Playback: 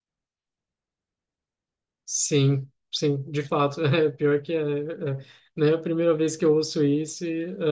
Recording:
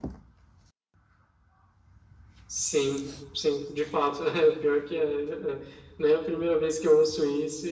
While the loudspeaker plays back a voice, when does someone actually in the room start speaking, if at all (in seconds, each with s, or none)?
none